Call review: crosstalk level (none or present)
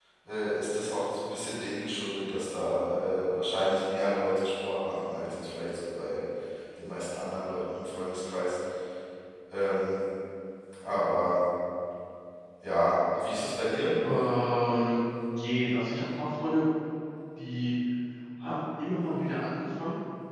none